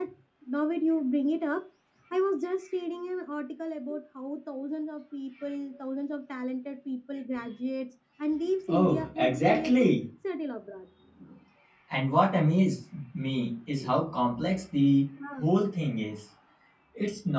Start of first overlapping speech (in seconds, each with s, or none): 8.7 s